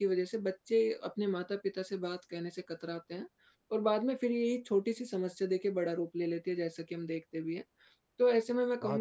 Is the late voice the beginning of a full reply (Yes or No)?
No